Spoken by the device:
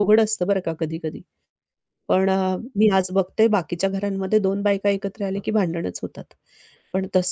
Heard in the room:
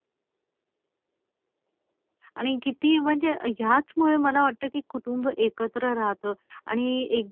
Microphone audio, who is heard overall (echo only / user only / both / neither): user only